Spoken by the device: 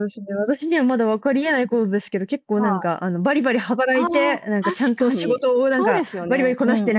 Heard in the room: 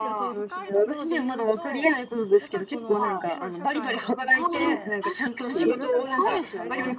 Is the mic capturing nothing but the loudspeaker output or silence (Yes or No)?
No